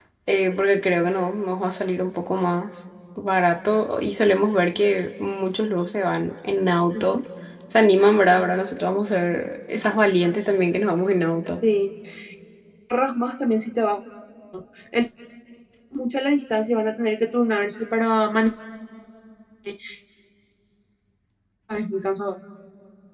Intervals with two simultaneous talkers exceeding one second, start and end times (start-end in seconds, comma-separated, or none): none